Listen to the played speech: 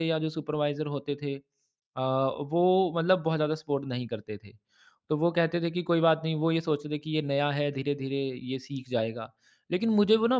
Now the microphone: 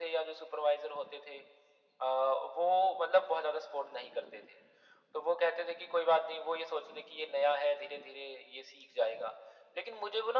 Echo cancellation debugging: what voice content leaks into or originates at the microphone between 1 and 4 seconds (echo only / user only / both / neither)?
echo only